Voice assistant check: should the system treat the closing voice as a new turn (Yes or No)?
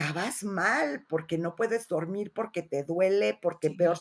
No